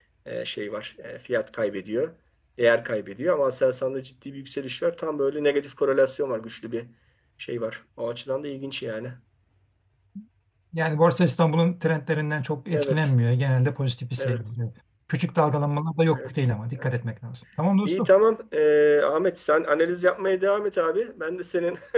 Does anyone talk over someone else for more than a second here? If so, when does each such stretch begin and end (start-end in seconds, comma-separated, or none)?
none